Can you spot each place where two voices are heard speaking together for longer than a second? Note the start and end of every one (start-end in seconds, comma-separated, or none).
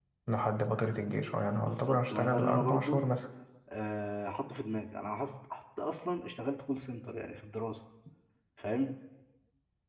1.6-3.0